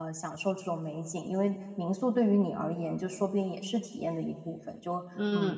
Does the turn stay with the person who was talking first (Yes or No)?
No